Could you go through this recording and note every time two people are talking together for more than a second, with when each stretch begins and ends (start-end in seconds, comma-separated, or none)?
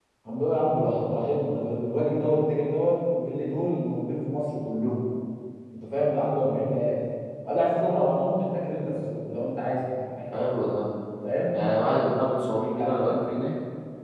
none